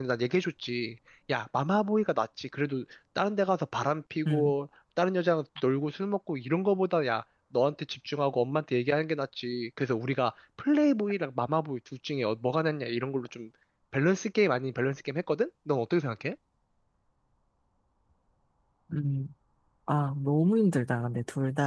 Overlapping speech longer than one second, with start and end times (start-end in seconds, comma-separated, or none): none